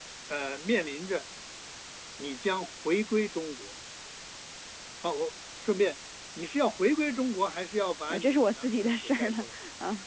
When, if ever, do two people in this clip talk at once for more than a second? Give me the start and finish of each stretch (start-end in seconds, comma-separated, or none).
8.1-9.6